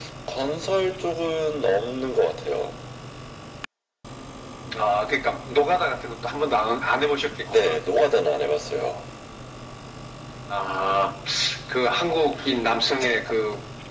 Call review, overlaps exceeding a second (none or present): none